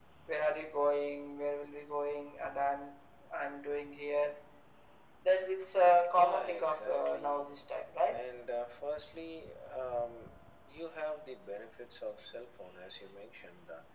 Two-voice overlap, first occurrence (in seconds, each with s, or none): 6.1 s